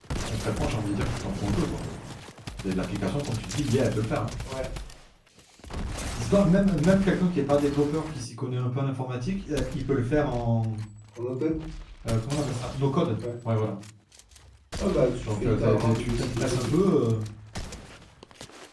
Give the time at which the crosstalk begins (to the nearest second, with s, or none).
15 s